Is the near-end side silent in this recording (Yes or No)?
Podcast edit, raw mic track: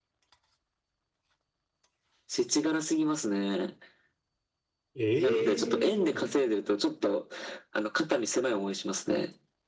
No